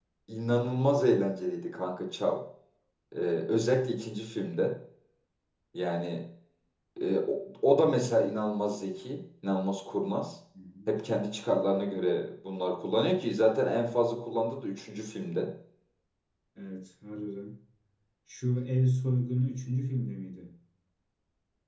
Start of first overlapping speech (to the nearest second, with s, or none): none